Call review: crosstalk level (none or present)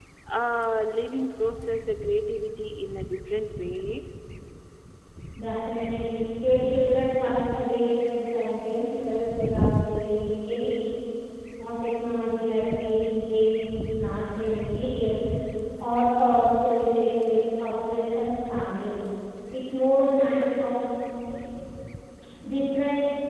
none